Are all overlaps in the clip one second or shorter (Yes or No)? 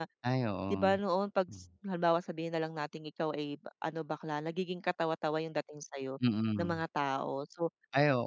Yes